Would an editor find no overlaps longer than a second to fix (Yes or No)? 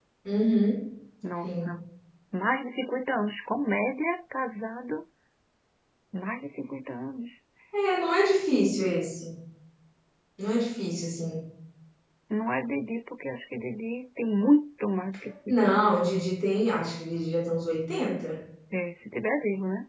Yes